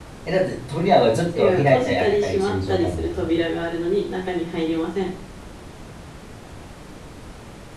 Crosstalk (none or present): present